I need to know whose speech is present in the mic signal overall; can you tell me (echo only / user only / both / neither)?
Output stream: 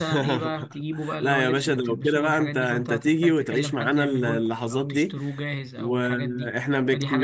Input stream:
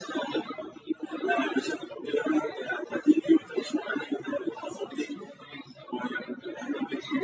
echo only